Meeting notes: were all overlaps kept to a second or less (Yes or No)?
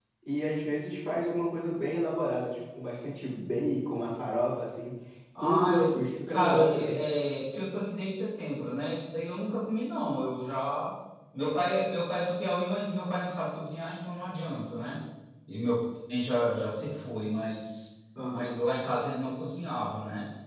No